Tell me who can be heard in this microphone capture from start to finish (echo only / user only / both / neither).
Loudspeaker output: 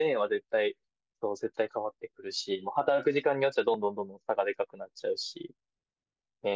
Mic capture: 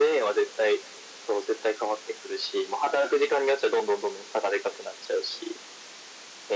echo only